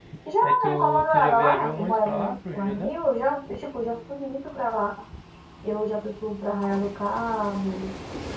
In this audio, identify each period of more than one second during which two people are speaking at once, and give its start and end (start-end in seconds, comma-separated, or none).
0.7-3.0